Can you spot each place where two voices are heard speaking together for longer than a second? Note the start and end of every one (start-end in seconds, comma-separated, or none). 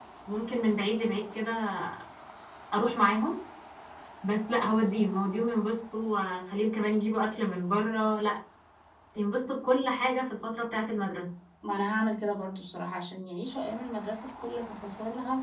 none